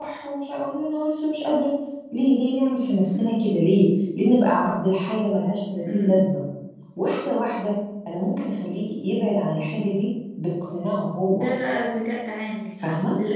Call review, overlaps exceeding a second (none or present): none